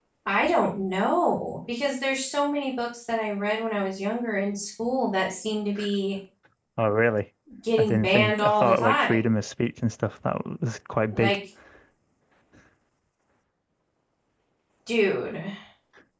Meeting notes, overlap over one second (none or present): present